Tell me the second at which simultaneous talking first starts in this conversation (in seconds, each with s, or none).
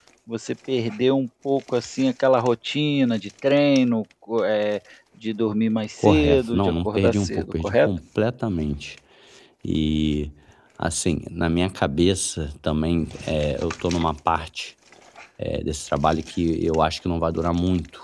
6.0 s